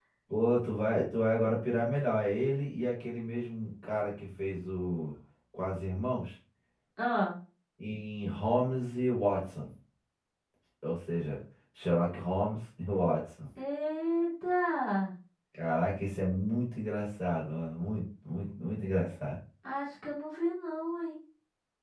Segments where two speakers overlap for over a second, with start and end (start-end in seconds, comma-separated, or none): none